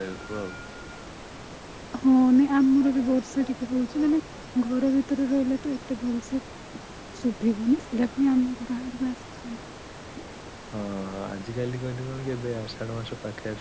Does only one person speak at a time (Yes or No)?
Yes